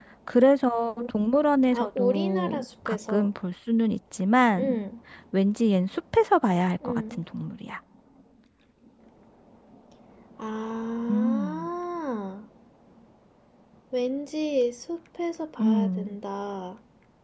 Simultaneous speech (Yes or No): Yes